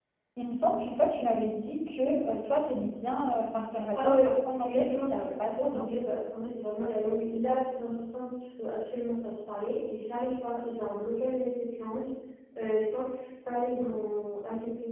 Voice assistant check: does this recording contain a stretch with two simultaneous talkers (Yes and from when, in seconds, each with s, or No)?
Yes, from 4.0 s